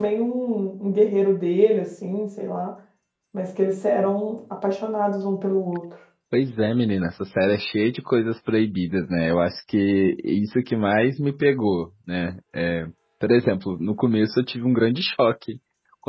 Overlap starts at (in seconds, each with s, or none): none